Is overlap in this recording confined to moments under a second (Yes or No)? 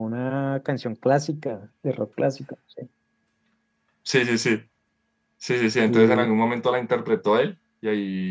Yes